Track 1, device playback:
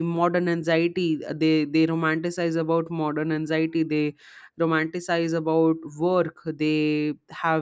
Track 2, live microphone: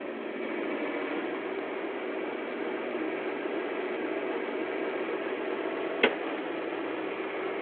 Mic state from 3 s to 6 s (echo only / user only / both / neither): neither